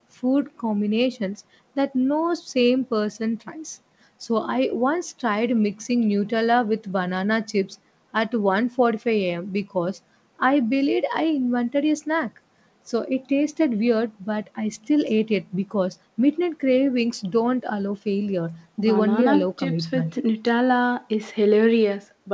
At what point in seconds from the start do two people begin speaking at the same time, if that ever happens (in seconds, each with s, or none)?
18.8 s